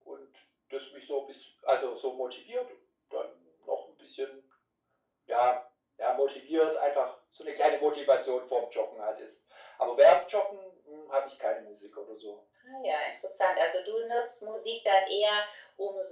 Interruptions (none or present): none